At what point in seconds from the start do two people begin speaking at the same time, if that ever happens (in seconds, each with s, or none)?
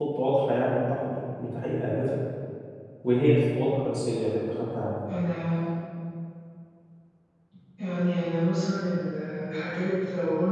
none